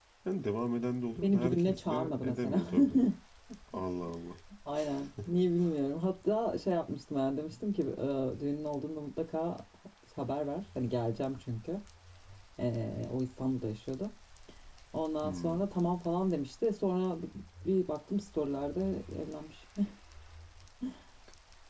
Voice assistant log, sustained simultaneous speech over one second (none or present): present